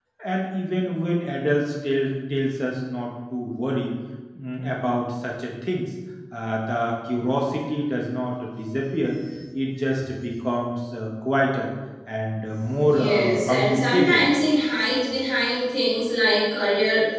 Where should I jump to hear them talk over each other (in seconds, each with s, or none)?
12.9 s